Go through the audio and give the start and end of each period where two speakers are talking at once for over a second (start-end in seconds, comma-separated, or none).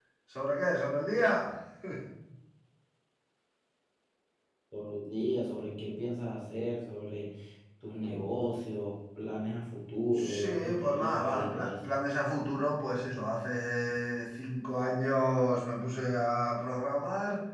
10.2-11.9